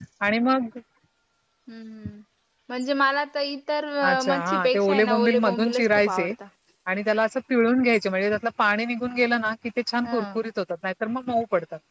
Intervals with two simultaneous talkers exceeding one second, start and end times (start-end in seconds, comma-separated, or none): 4.3-6.3